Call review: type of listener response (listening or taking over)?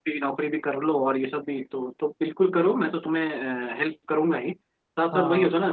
listening